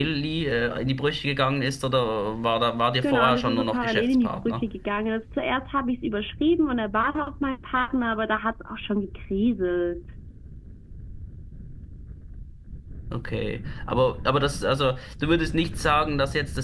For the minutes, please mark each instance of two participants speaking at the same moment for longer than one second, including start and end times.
3.0-4.6

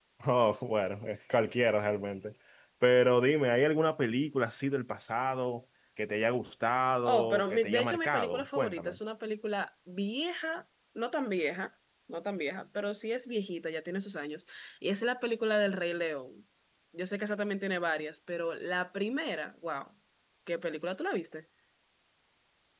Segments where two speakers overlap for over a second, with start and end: 7.0-9.0

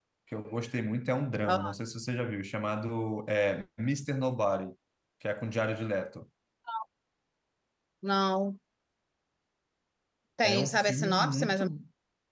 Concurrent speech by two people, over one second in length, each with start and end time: 10.4-11.7

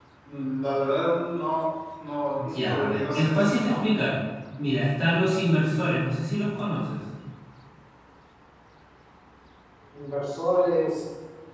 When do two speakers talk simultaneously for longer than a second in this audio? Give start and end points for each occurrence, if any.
2.4-3.8

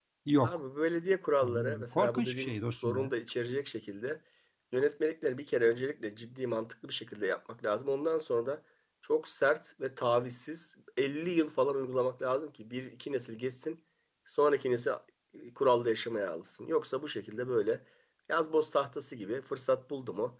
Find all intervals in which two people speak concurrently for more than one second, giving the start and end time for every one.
1.4-3.1

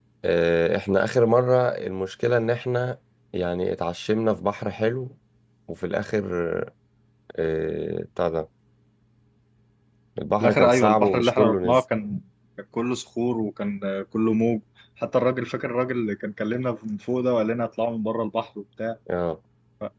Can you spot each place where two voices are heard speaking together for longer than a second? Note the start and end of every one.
10.4-11.8

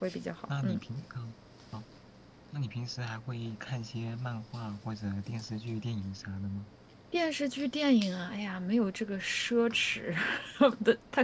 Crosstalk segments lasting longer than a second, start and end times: none

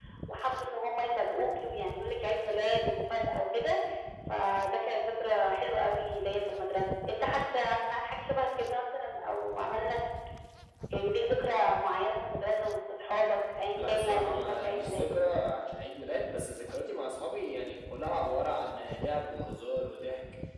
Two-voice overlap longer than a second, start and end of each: 13.8-15.1

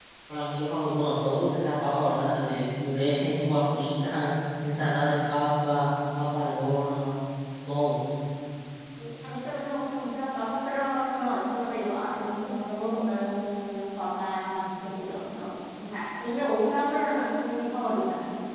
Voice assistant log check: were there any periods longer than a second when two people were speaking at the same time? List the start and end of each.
none

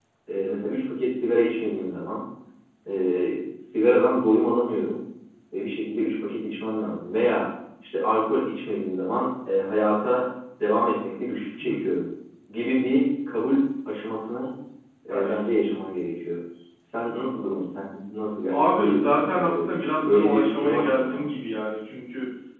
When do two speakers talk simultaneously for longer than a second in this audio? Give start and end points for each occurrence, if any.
18.5-21.2

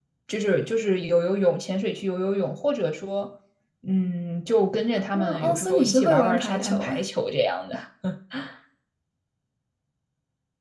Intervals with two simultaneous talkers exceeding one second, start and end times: 5.1-7.0

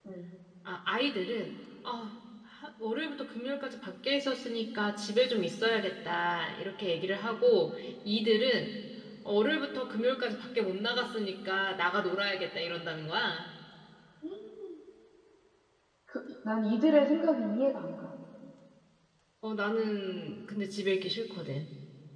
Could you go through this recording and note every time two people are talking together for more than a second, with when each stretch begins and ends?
none

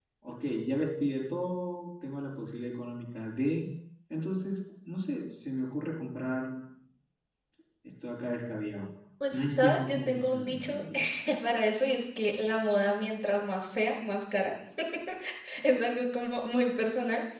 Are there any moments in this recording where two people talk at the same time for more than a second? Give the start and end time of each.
9.3-10.8

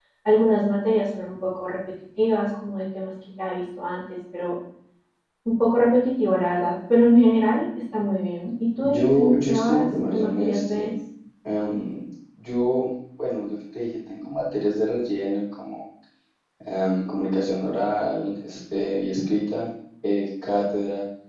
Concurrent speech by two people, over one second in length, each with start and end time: 8.9-10.9

